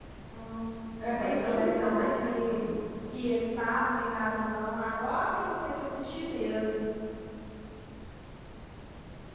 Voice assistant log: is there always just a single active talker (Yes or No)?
No